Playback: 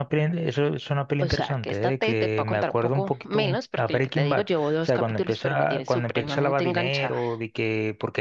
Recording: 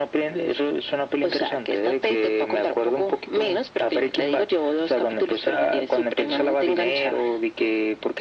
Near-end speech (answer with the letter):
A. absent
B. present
A